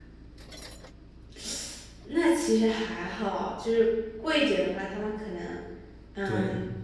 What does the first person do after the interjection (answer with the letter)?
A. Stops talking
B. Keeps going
A